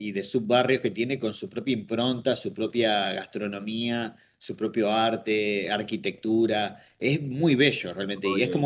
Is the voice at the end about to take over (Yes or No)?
No